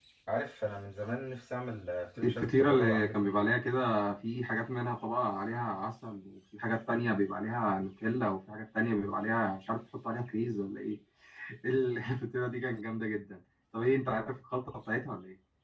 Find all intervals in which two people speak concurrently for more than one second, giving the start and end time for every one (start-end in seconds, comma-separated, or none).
2.2-3.5